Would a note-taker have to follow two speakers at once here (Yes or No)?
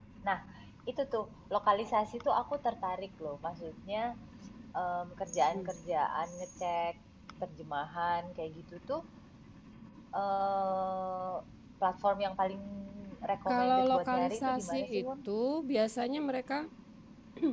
Yes